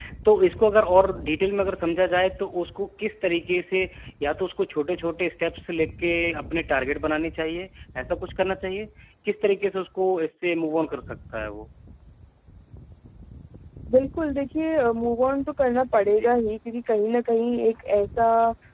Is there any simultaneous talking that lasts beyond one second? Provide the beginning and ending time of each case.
none

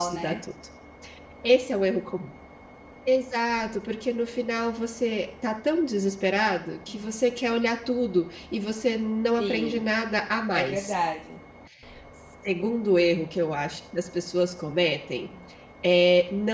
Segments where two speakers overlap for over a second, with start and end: none

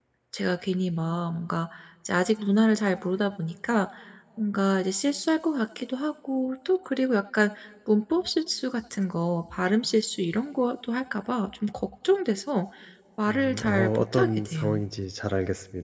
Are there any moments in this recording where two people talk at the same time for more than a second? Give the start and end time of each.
13.3-14.8

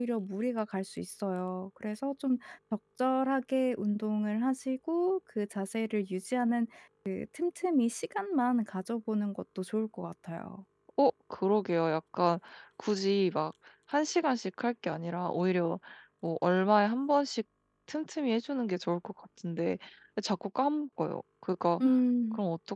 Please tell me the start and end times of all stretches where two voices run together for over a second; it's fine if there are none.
none

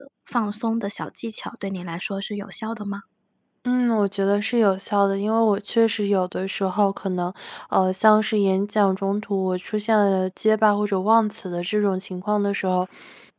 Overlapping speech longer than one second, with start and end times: none

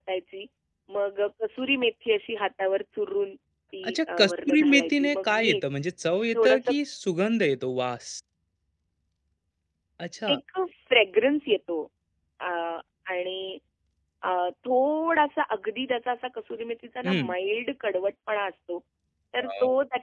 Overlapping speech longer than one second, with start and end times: 3.9-5.6

